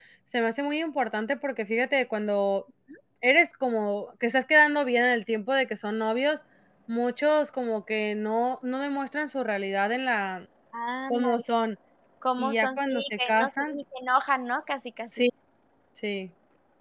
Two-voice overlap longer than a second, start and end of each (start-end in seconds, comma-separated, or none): 12.4-13.8